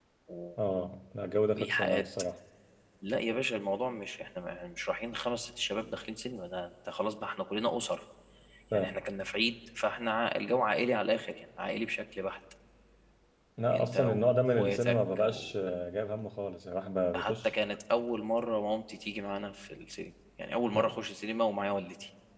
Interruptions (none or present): present